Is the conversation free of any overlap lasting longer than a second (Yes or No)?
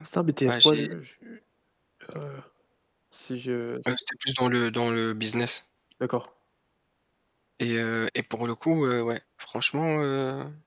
Yes